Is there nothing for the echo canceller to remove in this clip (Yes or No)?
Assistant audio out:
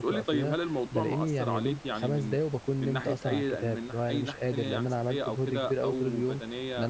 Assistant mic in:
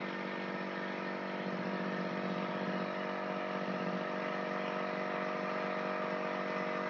Yes